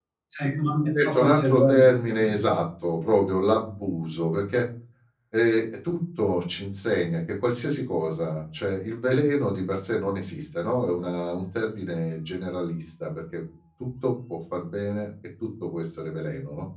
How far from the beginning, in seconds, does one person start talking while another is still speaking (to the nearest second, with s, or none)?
1 s